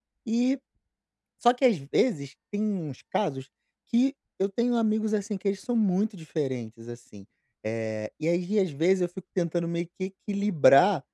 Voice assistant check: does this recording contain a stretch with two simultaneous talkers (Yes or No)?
No